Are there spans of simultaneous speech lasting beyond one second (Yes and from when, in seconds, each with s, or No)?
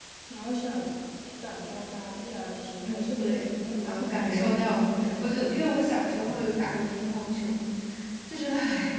Yes, from 2.8 s